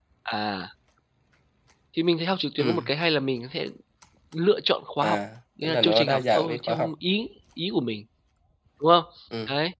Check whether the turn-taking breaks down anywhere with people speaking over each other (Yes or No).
Yes